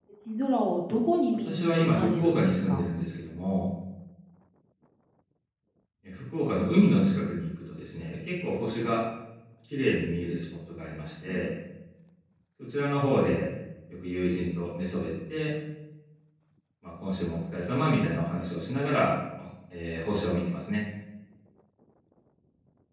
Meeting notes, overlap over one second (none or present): present